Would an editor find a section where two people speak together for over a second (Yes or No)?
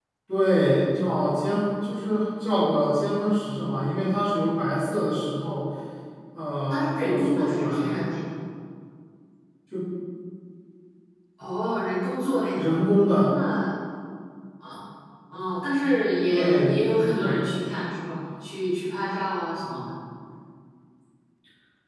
Yes